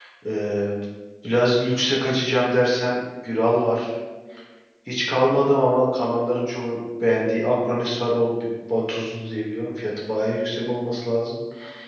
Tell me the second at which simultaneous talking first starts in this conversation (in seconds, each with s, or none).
none